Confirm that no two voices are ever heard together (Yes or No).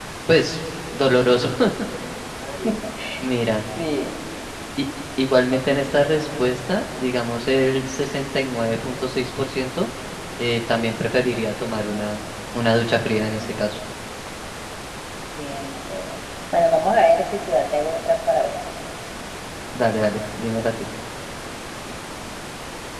Yes